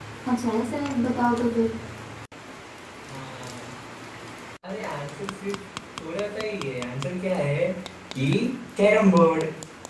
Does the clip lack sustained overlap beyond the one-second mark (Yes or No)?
Yes